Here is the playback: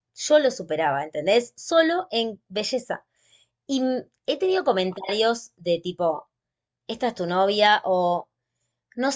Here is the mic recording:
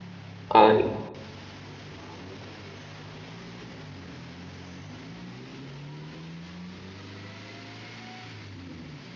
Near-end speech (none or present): present